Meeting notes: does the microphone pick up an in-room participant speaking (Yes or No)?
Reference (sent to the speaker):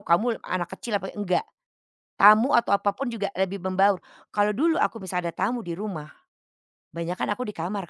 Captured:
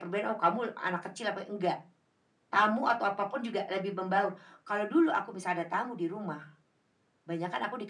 No